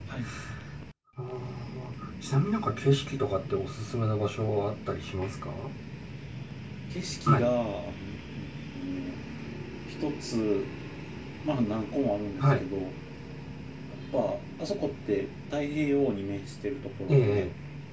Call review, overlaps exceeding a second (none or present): none